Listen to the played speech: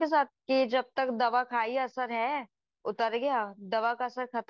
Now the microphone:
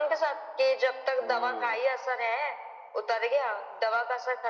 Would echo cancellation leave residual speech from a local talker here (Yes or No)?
Yes